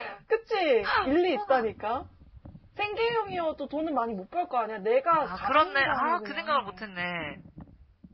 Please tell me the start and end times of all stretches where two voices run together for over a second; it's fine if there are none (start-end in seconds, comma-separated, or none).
5.2-6.7